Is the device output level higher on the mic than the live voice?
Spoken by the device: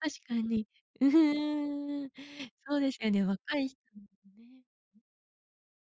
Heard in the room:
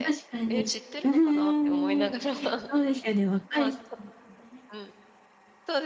Yes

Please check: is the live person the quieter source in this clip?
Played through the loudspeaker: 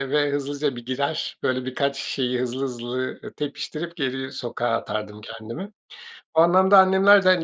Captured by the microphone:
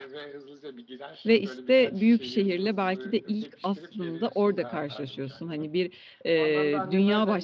No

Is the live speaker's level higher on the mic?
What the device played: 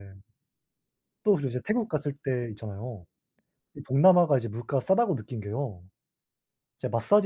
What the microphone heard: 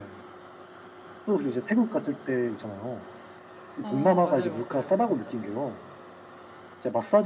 No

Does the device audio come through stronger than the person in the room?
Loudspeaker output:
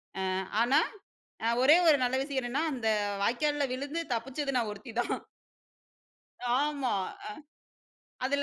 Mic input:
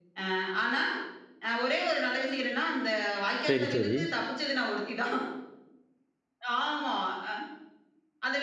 No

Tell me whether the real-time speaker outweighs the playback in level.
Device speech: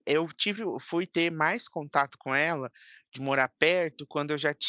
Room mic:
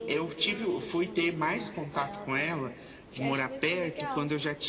No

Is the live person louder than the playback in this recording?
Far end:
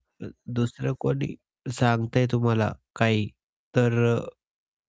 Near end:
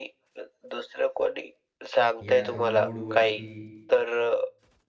No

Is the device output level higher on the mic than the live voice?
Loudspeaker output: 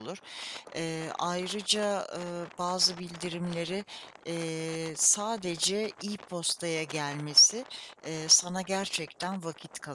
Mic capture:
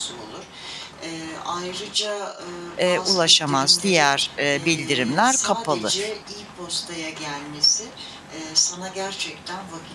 No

